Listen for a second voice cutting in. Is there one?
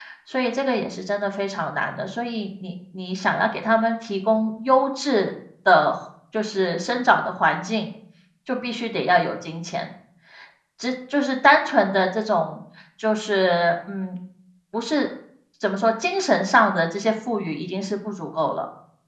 No

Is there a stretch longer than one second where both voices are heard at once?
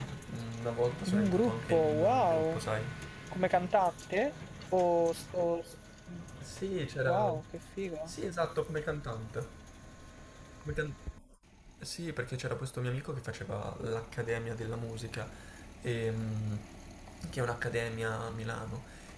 Yes, from 1.1 s

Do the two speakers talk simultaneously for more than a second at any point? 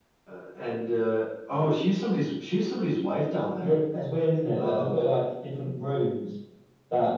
No

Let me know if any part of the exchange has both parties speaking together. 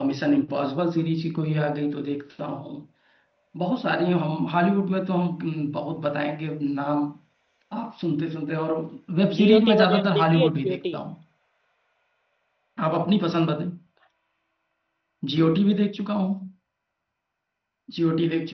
Yes, from 9.4 s

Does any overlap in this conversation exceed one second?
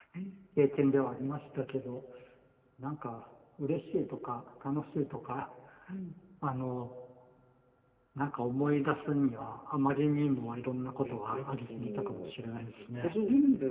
Yes, from 11.0 s

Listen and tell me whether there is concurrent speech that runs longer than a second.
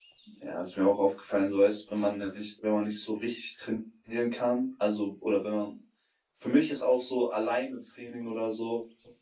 No

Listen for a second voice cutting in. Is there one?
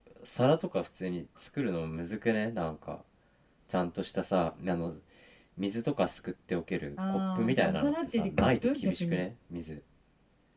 Yes, from 7.0 s

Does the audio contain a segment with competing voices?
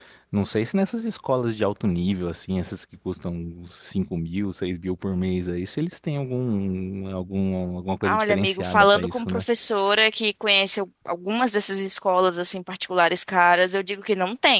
Yes, from 8.0 s

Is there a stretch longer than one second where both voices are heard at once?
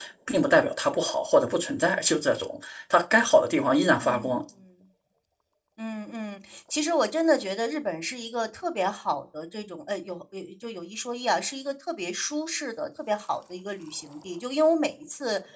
No

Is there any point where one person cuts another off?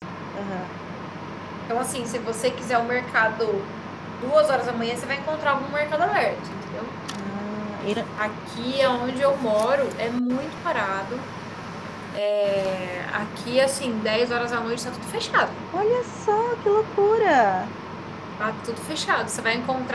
No

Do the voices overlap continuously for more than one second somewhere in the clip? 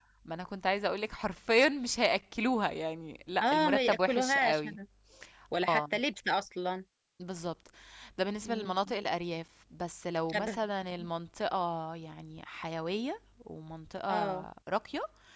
Yes, from 3.4 s

